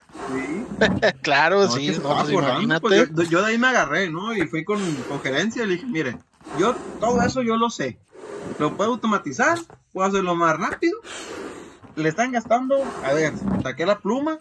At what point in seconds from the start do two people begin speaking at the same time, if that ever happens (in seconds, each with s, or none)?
1.6 s